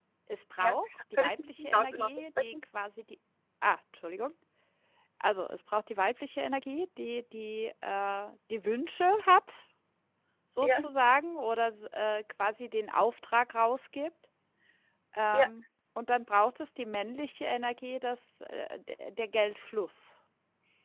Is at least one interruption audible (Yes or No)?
Yes